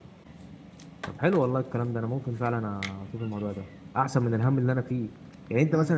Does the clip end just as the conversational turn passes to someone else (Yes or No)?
No